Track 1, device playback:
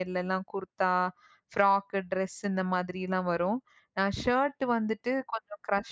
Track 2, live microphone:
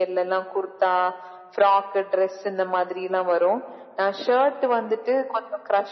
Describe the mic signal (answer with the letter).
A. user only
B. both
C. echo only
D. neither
C